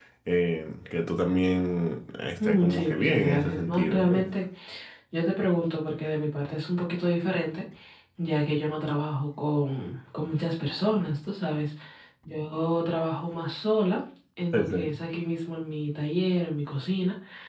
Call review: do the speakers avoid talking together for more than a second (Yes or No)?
No